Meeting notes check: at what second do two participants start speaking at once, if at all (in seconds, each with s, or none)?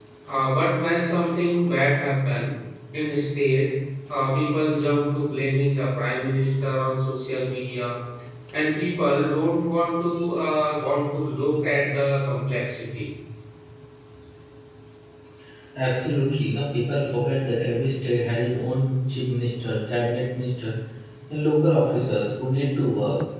none